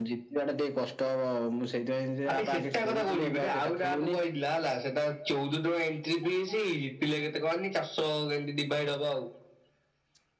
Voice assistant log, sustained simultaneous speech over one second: present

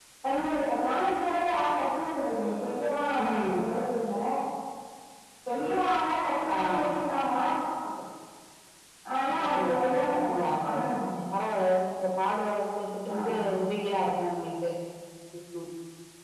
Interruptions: present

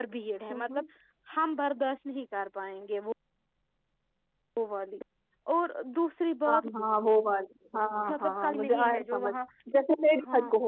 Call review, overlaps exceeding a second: present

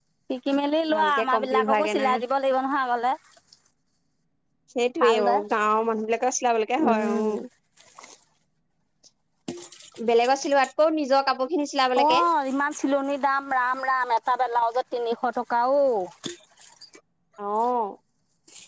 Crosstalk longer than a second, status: present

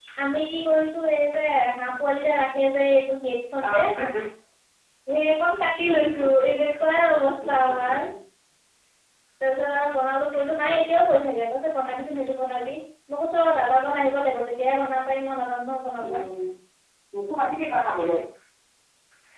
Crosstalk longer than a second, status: none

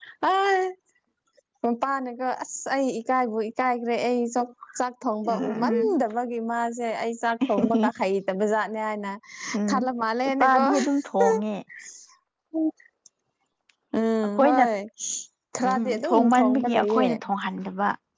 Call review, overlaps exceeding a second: present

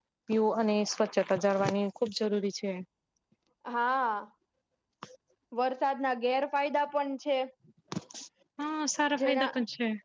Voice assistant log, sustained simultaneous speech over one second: none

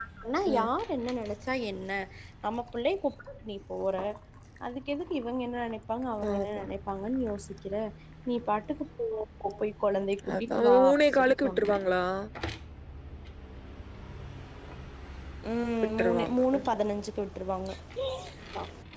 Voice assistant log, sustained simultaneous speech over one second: present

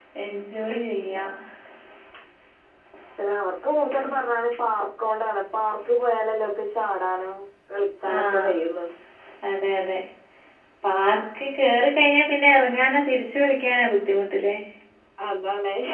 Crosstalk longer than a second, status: none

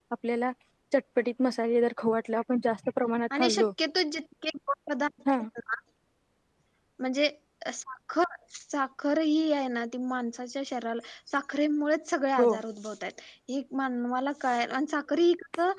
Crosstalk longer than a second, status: none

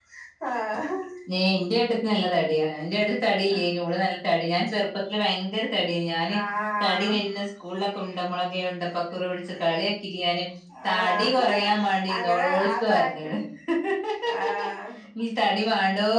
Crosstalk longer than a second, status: present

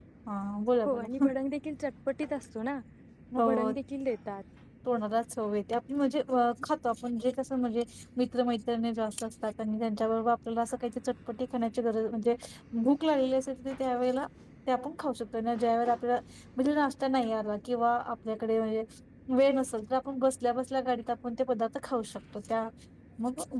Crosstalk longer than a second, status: none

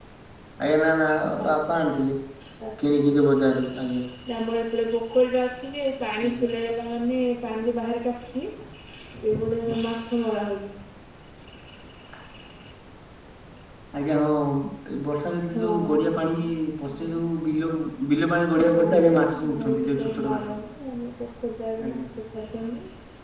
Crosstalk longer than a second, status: present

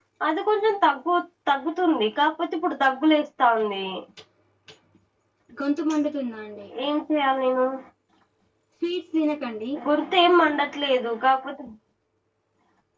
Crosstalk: none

